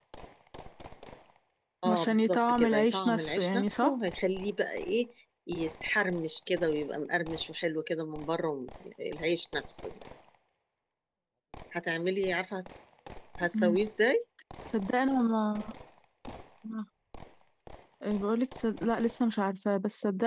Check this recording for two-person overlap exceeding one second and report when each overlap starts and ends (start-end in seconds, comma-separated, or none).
1.9-4.0